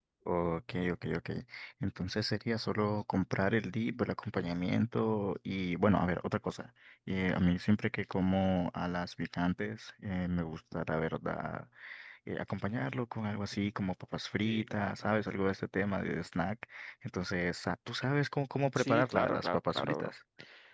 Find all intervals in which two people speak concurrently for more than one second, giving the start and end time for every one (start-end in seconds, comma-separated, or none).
18.8-20.1